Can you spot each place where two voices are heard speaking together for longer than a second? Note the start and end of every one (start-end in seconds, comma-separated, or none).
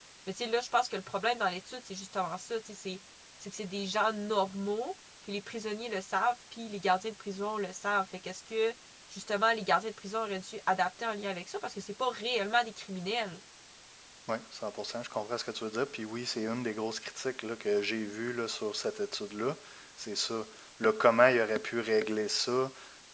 none